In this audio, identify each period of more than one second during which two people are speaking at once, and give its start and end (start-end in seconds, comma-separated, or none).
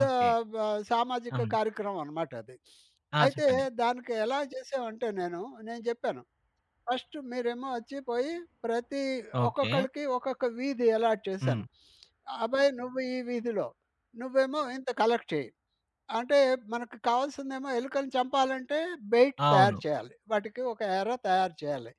none